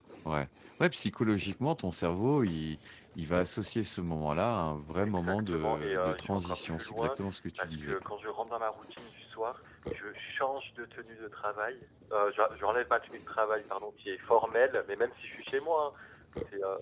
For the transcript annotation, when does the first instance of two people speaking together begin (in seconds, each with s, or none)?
5.0 s